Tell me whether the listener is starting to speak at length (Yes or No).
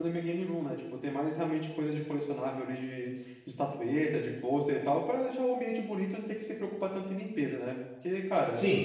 Yes